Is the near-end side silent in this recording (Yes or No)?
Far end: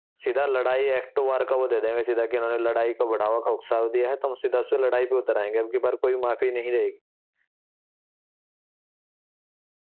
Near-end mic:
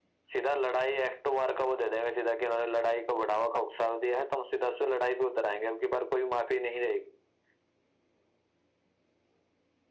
Yes